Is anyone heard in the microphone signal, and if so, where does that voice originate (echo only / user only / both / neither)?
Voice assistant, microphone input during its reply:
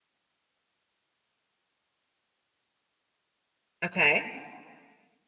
user only